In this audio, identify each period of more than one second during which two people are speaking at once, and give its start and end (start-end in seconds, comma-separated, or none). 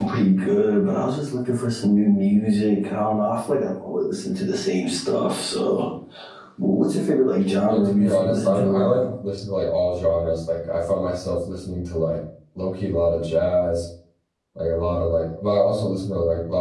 7.7-9.1